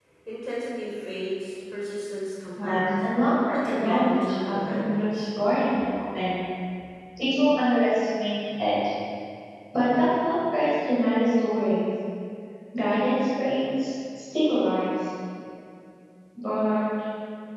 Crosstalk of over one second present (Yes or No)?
Yes